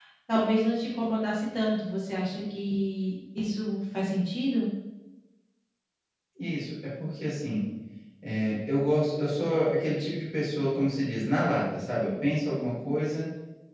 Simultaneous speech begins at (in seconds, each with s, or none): none